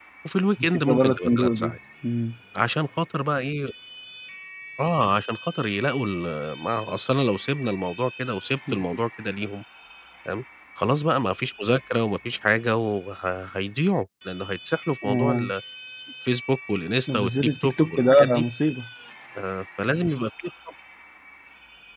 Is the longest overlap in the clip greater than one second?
Yes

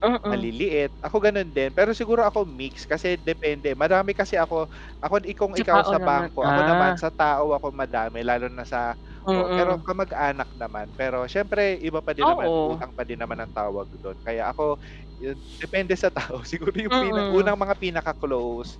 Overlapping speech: Yes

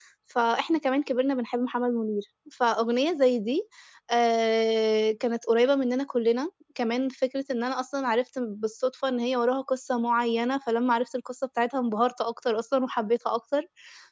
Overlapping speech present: No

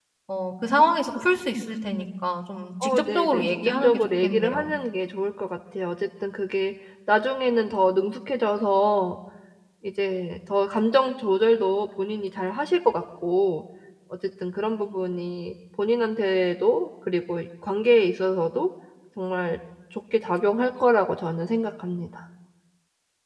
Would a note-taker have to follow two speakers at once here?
Yes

